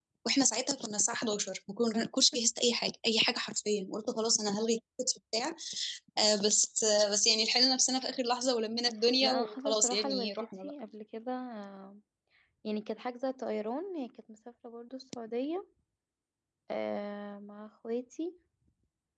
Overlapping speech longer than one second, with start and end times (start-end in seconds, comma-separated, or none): 9.2-10.7